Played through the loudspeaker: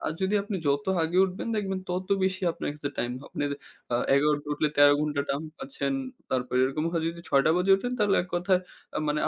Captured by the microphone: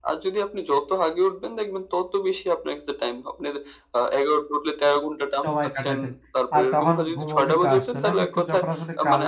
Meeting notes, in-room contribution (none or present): present